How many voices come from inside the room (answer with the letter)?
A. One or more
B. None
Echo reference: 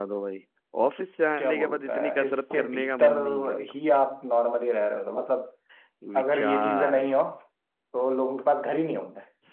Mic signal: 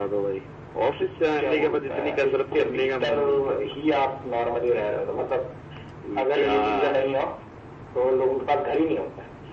B